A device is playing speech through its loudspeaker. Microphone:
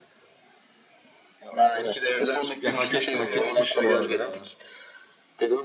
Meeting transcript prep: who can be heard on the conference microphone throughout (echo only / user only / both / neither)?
both